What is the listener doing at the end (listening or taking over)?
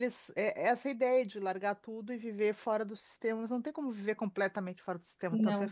listening